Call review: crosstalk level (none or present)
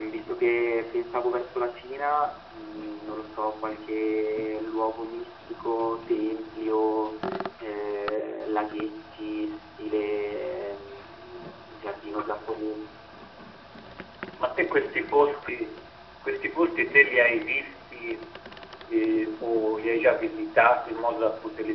none